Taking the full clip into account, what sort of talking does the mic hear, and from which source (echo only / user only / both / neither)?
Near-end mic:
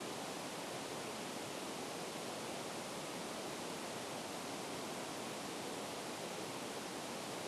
neither